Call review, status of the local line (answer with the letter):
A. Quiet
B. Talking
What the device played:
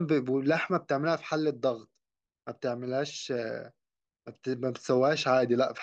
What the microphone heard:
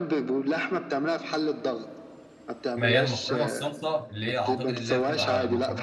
B